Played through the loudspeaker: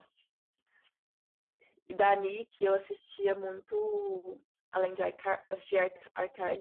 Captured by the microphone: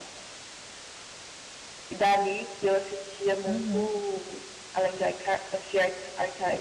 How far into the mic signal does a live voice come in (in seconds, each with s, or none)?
3.5 s